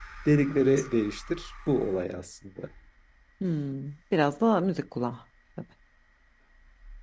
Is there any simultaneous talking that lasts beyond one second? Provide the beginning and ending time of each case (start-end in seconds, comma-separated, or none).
none